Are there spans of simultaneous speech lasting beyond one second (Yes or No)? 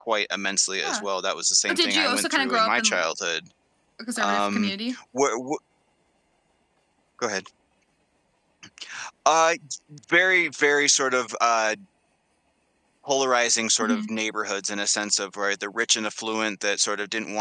Yes